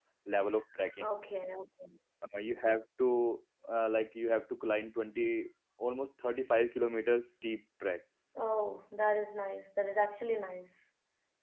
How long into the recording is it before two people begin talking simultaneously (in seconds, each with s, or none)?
none